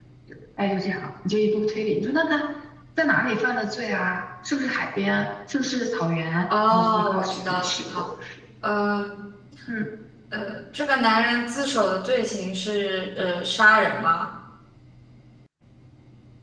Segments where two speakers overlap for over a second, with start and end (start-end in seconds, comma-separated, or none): 6.7-8.0